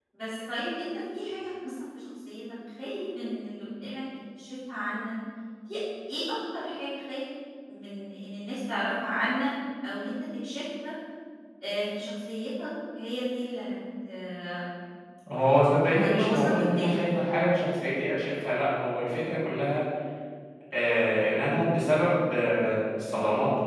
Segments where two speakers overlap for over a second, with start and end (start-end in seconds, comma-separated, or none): 15.8-17.2